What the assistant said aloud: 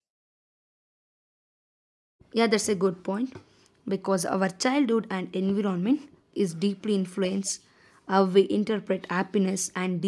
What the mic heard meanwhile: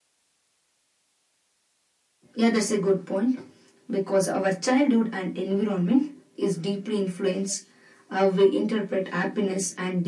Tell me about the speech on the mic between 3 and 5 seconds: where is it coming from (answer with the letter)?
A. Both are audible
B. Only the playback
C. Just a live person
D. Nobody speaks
B